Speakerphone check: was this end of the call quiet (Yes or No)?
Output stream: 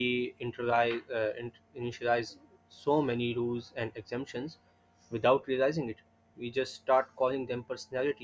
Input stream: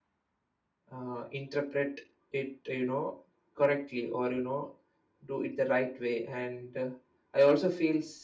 No